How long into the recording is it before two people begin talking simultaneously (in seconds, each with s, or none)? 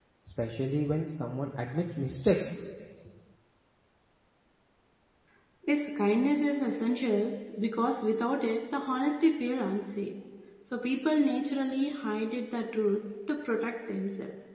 none